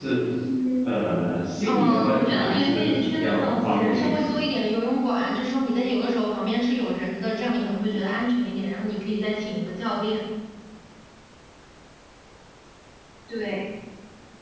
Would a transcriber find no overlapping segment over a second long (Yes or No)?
No